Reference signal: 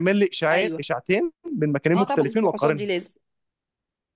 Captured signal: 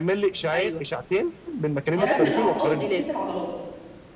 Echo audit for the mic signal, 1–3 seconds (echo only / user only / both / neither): both